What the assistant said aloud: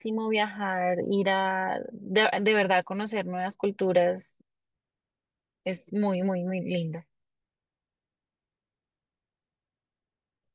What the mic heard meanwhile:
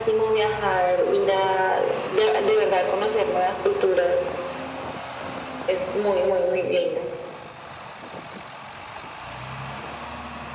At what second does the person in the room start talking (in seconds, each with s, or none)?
none